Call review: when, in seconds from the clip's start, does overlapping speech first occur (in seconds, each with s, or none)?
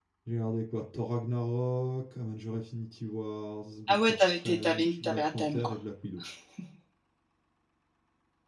3.9 s